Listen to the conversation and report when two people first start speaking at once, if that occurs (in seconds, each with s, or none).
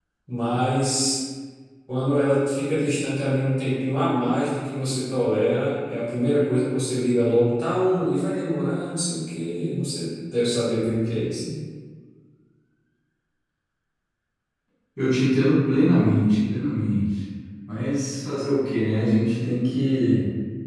none